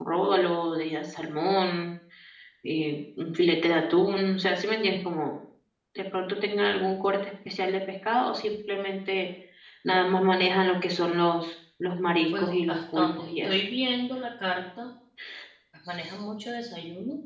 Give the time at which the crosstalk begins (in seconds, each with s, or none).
12.3 s